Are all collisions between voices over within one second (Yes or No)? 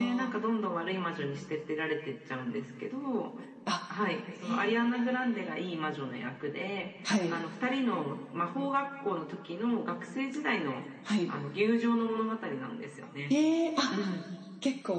Yes